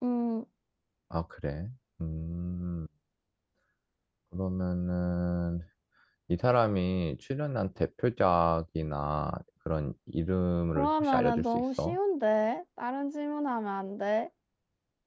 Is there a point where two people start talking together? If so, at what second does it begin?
10.7 s

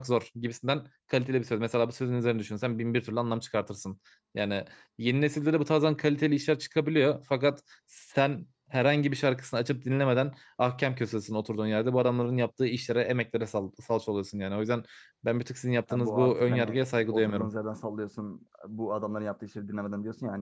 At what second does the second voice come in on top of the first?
15.9 s

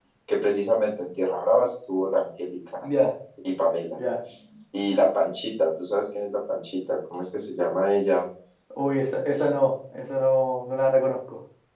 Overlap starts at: none

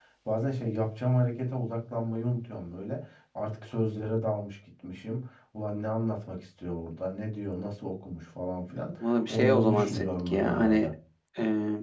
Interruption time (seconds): 9.0 s

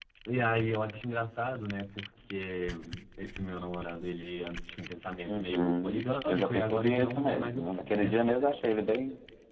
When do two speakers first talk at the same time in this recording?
5.3 s

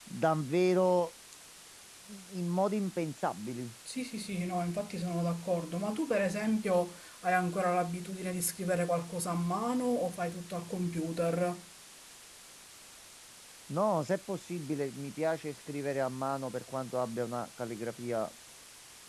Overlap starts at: none

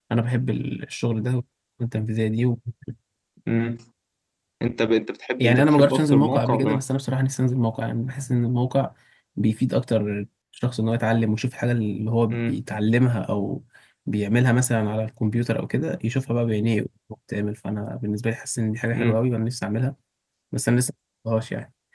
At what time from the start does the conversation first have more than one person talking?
5.4 s

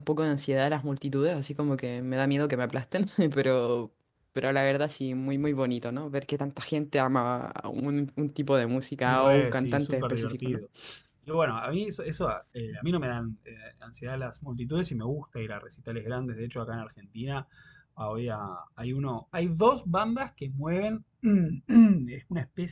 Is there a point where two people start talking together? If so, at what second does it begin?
9.1 s

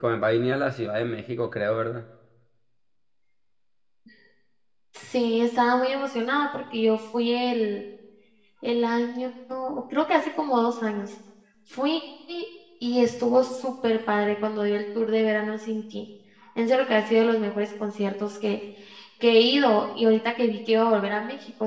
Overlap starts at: none

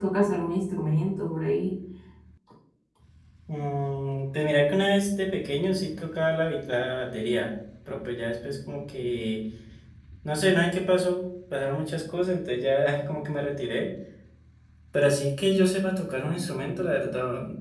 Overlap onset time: none

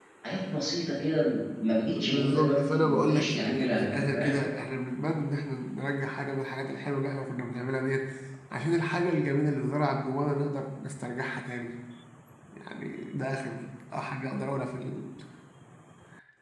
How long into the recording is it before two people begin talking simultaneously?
1.9 s

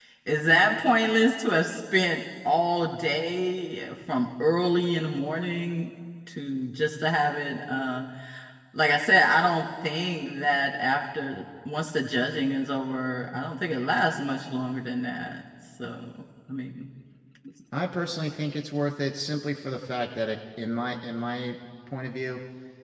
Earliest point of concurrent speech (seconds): none

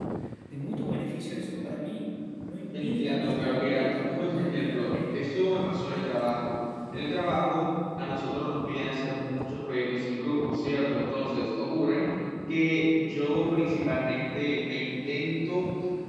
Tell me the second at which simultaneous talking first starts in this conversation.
2.7 s

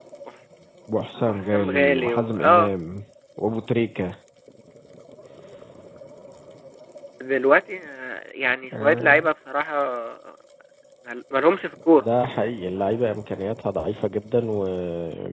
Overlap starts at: 1.3 s

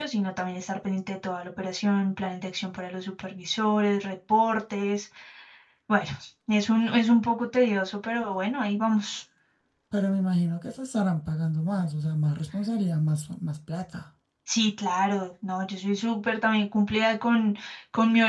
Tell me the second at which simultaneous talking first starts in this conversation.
none

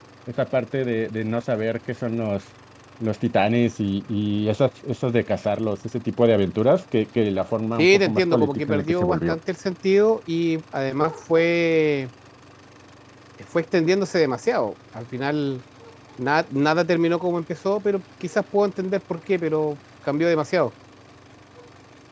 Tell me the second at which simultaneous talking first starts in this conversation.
7.8 s

